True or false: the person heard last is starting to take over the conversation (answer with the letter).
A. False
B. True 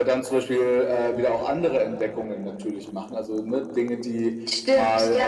B